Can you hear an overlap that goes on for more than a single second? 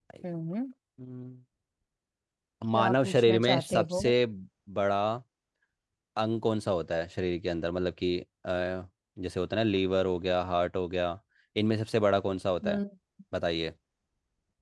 Yes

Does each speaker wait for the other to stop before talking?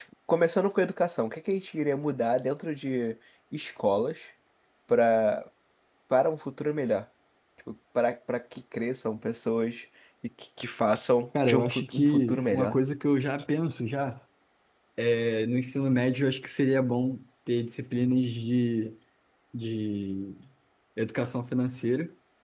No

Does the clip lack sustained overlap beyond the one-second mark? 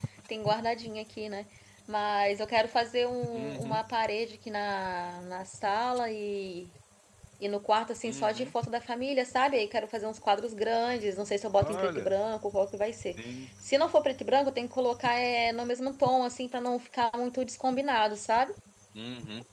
Yes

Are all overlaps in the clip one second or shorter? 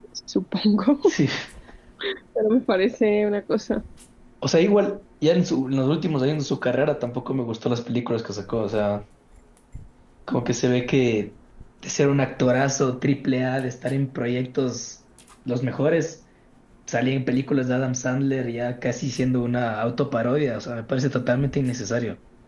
Yes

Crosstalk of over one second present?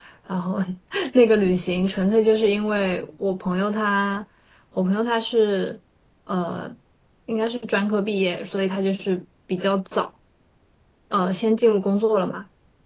No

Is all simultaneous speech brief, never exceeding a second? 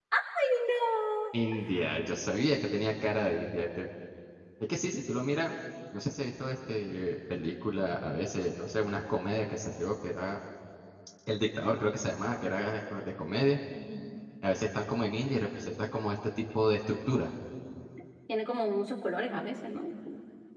Yes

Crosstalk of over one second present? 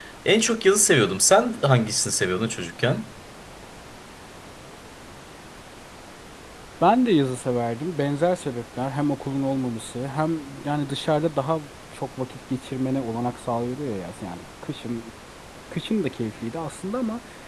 No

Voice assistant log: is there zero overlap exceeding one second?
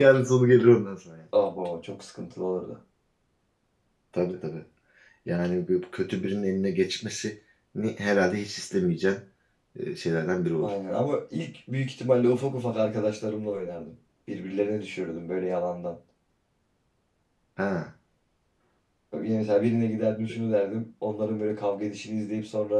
Yes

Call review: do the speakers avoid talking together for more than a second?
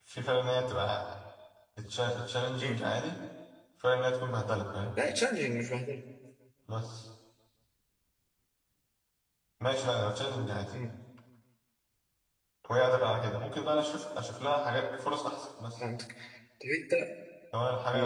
Yes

